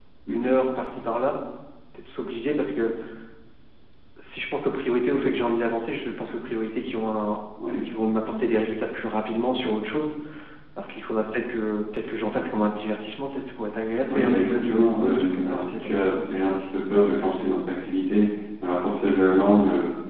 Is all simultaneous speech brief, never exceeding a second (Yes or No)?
No